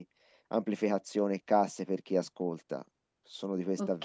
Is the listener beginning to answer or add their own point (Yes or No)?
Yes